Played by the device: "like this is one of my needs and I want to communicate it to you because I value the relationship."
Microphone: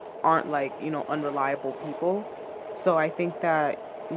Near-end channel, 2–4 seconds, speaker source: user only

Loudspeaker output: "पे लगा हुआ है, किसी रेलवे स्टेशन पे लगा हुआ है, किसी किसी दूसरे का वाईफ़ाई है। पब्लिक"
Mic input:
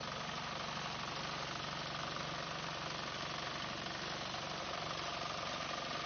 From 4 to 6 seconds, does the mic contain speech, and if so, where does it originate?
neither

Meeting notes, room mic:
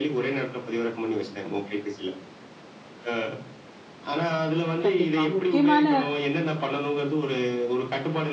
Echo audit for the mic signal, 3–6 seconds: both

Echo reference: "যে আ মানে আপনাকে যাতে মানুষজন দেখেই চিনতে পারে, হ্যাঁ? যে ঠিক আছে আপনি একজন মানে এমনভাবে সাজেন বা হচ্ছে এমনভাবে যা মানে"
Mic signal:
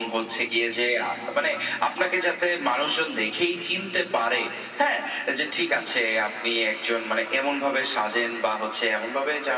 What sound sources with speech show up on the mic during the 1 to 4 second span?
echo only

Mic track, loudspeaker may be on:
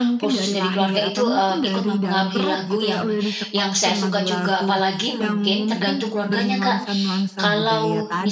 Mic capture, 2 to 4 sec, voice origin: both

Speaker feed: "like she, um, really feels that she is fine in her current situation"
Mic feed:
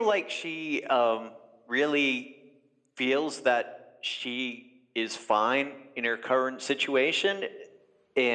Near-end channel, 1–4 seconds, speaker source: echo only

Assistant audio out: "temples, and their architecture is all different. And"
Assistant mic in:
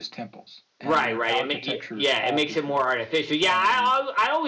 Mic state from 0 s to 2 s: both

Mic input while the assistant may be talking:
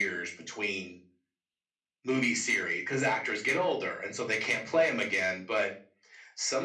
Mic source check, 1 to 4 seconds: echo only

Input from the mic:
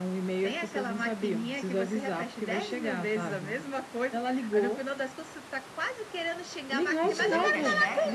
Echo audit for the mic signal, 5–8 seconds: both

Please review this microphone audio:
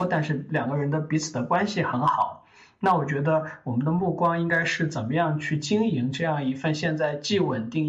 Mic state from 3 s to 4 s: user only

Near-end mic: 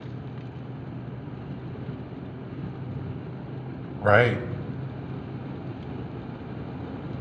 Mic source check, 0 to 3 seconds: neither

